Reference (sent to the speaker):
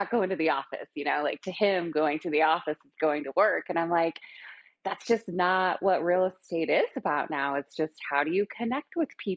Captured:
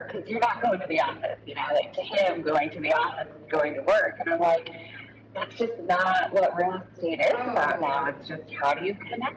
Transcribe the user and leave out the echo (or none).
Oh.